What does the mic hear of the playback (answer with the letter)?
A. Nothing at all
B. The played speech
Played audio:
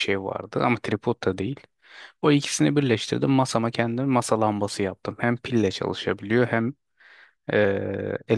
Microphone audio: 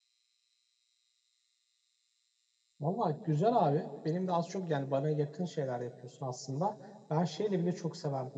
A